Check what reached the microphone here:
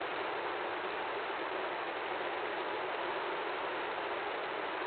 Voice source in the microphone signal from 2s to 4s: neither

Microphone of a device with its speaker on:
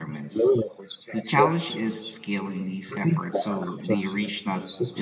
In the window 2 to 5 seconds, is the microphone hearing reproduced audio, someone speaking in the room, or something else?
both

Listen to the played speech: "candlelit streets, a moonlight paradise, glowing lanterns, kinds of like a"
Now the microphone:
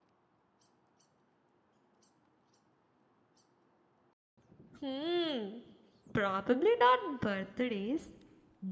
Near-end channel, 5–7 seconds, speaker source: user only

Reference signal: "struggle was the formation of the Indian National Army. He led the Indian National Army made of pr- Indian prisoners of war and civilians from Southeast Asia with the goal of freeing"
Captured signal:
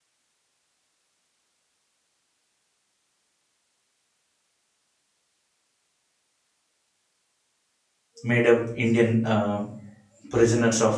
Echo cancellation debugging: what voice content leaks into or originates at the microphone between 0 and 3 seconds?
neither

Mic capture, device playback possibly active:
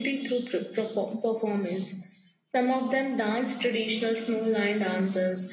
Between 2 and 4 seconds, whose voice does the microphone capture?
echo only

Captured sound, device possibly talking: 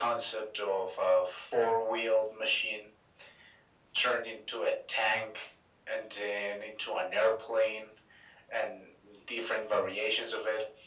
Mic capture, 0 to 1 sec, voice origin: echo only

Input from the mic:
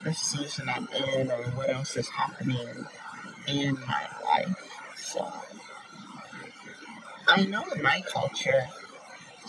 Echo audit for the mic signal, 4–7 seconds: echo only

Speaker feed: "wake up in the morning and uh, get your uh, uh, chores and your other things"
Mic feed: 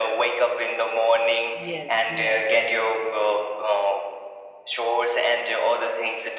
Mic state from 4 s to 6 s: echo only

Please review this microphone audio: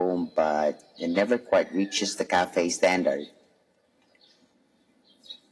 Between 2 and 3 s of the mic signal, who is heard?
echo only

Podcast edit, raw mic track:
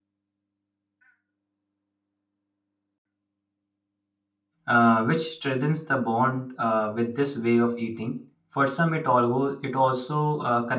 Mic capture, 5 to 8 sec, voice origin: user only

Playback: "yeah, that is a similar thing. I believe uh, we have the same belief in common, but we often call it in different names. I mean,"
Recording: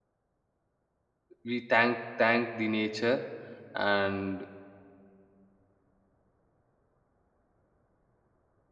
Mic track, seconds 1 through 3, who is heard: user only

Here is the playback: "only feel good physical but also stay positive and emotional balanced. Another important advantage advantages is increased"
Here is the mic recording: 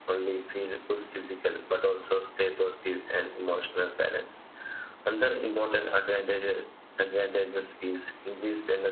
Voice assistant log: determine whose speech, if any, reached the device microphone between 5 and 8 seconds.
echo only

